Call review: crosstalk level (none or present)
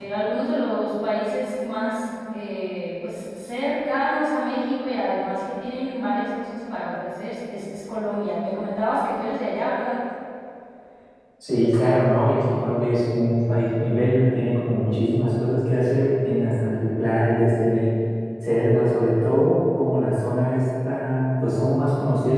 none